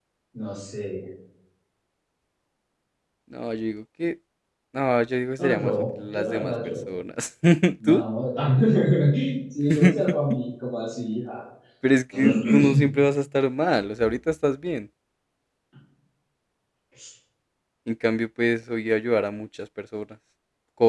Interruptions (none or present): present